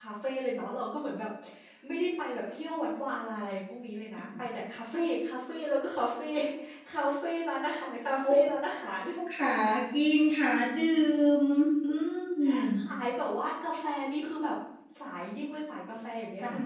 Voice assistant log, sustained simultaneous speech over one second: none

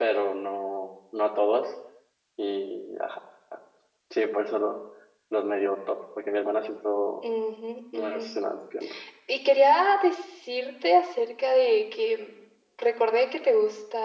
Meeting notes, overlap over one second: none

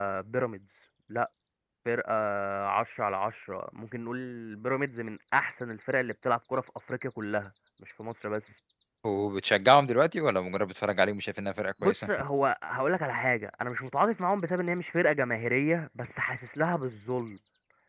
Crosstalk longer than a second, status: none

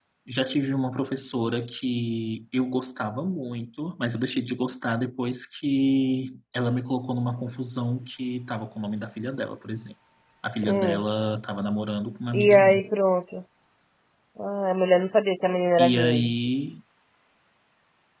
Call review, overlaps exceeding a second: none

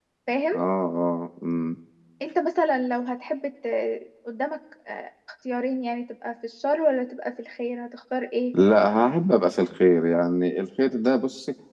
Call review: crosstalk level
none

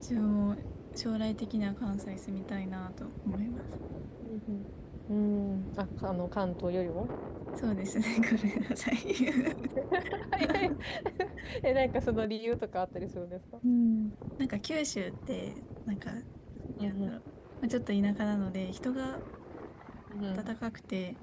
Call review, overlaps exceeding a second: none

